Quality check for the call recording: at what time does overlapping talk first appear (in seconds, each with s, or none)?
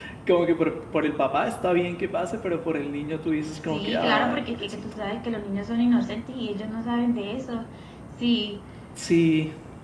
3.7 s